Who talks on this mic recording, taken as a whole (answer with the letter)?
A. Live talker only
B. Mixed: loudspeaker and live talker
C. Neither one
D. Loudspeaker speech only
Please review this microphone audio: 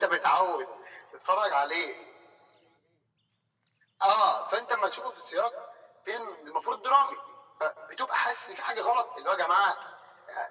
D